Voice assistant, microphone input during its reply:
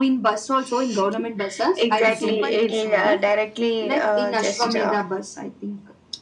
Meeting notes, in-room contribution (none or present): present